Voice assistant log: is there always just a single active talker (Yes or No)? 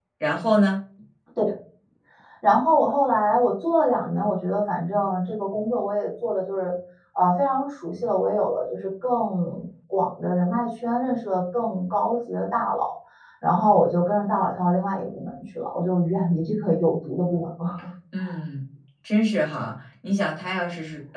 Yes